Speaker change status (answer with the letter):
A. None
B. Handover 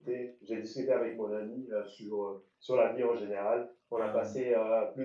A